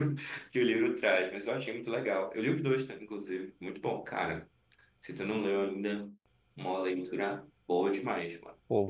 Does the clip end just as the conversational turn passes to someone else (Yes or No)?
Yes